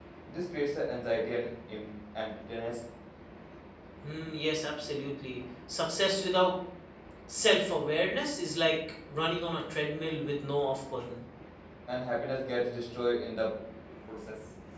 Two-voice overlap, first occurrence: none

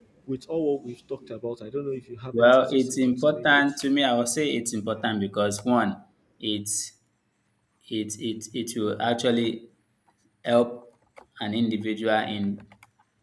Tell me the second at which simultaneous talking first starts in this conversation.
2.3 s

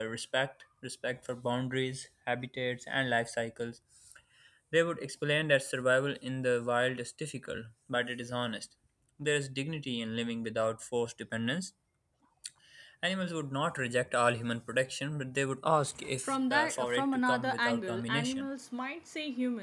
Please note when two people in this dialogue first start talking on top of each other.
16.2 s

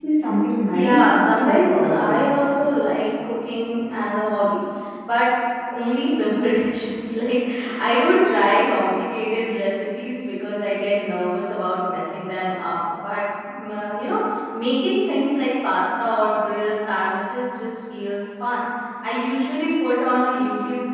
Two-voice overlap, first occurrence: 0.7 s

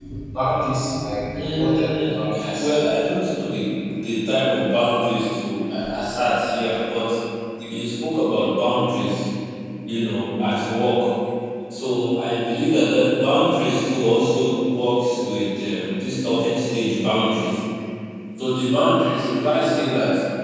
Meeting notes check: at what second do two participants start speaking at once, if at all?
1.4 s

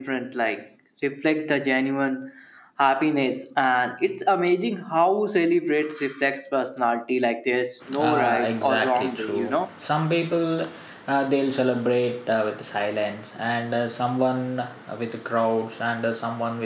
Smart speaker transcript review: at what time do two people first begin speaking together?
7.8 s

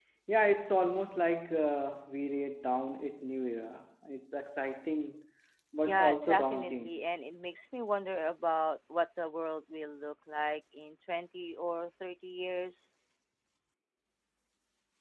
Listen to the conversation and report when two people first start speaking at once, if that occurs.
5.8 s

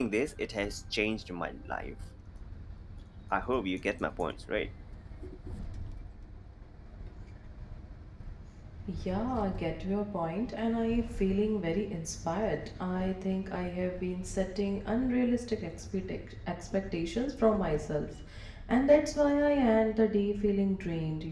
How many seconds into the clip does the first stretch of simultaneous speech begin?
none

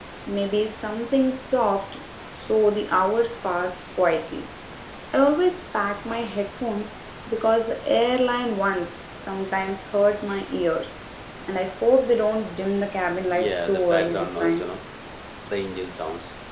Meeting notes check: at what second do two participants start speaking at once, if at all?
13.3 s

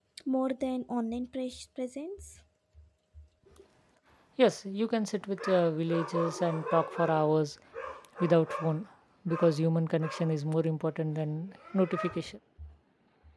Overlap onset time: none

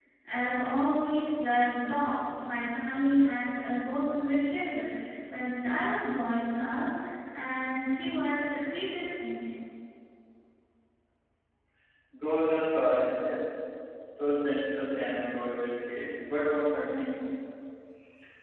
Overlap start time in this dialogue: none

